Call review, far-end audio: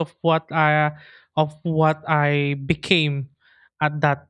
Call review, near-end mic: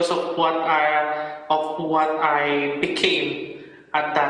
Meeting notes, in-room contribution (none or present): none